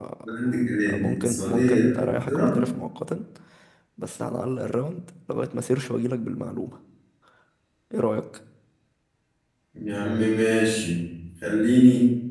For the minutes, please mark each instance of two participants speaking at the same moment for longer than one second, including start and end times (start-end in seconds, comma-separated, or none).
0.9-2.5